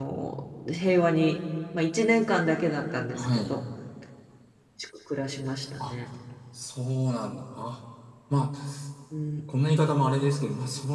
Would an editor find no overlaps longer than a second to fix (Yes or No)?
Yes